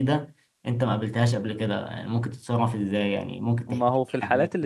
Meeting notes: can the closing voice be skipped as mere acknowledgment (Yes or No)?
No